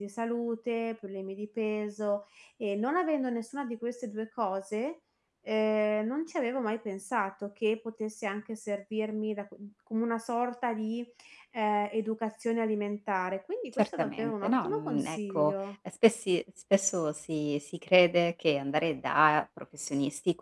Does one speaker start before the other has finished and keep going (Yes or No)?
Yes